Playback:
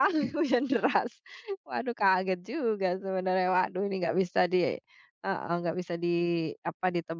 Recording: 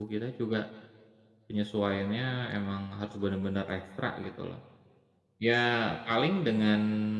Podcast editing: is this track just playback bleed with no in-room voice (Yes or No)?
No